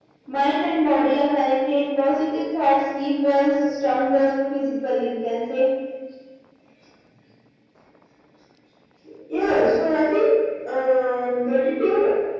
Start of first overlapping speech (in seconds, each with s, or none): none